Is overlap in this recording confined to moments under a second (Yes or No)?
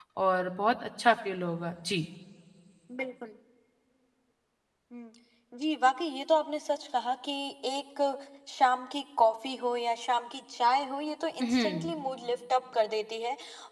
Yes